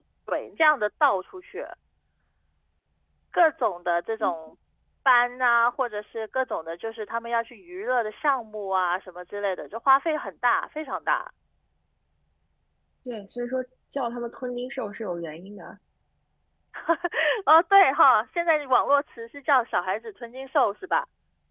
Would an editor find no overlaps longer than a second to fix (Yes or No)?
Yes